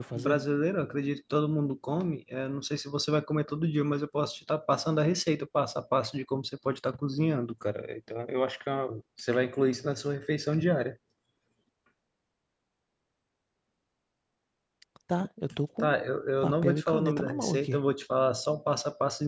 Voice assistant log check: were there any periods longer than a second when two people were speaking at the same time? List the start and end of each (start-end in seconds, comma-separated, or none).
16.4-17.8